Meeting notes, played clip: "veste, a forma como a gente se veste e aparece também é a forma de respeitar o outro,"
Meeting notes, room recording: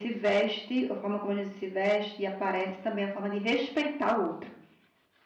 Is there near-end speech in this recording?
No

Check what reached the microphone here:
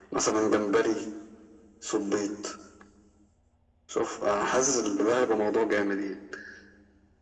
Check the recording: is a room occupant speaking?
No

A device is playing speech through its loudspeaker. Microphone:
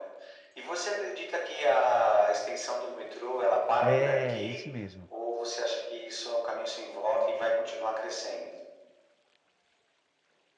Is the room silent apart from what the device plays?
No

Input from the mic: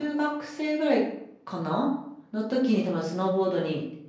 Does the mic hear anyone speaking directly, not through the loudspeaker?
Yes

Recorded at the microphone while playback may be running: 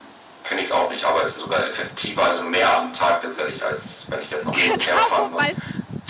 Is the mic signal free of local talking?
No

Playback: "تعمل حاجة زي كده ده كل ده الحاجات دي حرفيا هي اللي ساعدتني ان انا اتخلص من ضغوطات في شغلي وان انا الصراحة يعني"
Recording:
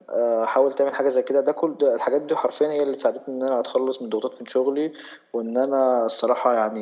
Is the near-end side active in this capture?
No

